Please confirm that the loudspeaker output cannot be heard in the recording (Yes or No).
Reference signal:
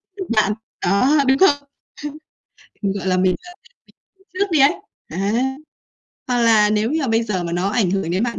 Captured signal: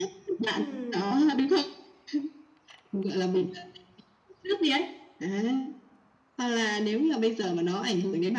No